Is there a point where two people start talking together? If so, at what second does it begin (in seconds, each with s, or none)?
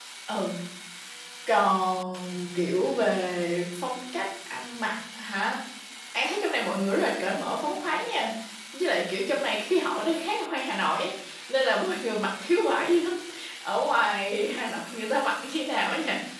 none